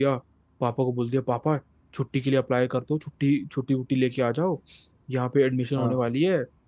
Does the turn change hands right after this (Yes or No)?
No